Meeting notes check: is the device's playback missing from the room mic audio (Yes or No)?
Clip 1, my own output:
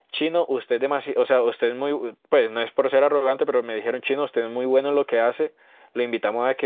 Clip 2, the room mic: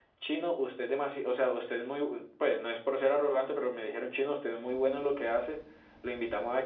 No